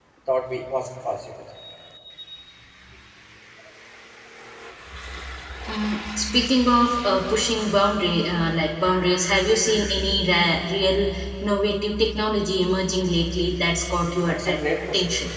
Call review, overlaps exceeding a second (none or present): present